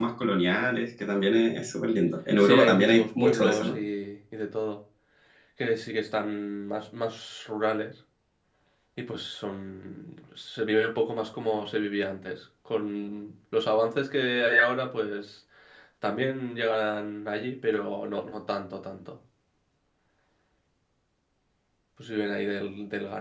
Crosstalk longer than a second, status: present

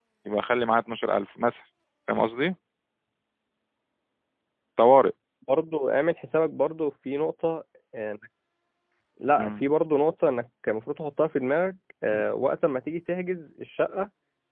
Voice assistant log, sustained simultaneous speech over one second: none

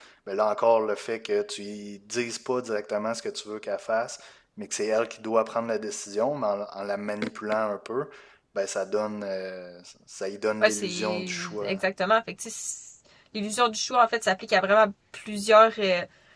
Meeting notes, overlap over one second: present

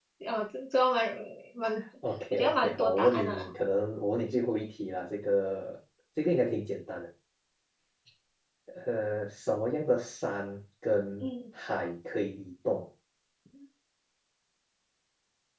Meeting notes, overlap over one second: present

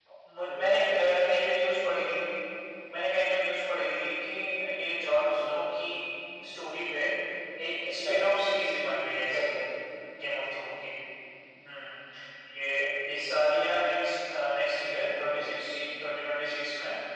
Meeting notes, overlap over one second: none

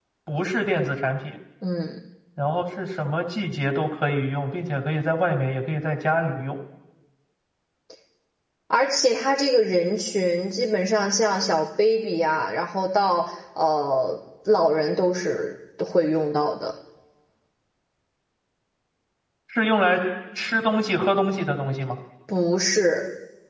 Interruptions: none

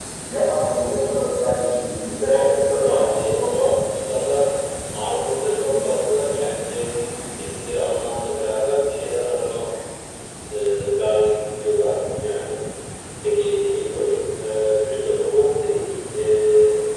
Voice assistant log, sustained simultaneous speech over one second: present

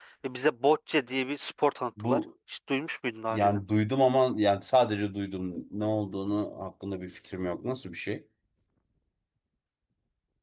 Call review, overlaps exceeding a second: none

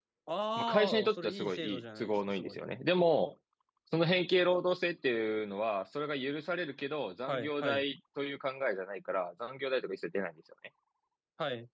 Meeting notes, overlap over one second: present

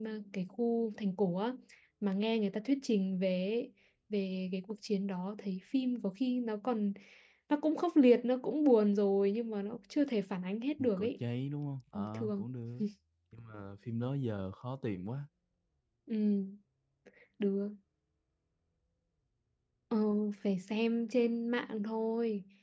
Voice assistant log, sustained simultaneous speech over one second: none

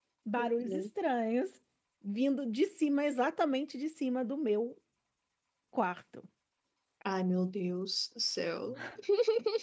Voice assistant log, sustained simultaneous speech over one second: none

